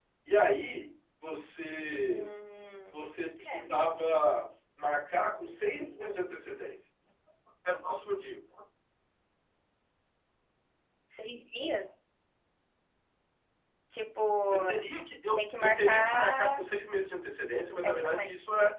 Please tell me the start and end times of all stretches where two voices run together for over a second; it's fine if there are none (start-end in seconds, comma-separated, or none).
15.3-16.7